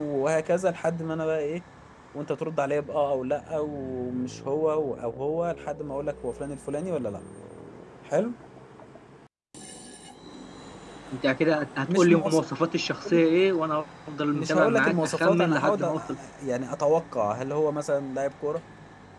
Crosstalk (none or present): present